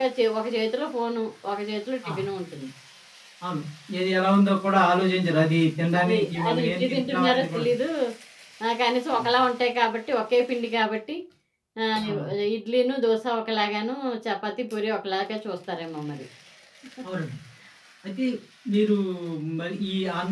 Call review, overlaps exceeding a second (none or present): present